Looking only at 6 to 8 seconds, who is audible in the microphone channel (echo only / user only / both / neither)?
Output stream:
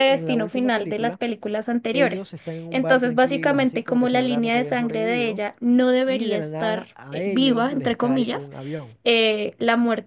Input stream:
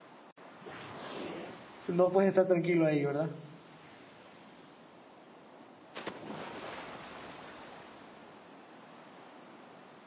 neither